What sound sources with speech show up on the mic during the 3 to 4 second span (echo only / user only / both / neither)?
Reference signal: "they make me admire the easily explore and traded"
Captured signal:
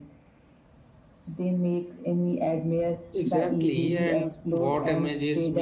both